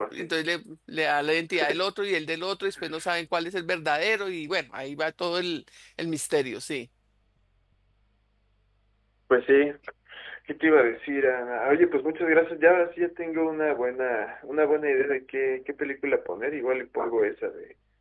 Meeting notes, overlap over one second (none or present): none